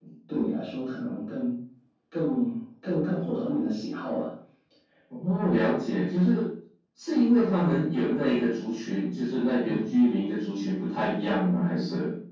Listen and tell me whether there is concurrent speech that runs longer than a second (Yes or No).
No